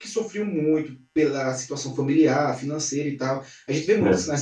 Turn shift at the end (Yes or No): No